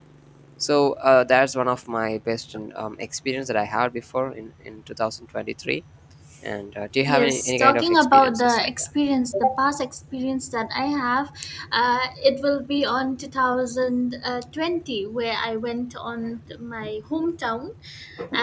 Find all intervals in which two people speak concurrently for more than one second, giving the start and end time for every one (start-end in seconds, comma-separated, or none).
7.1-8.7